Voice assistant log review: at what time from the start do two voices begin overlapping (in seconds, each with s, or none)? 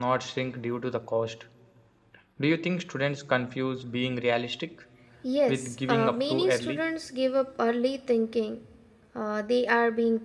5.5 s